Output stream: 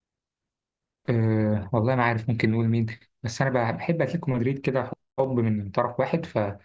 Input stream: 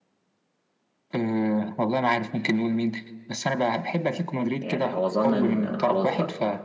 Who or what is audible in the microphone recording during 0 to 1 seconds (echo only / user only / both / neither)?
neither